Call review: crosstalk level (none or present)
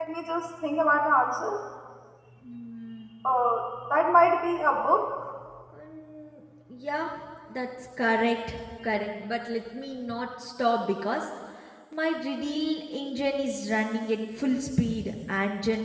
none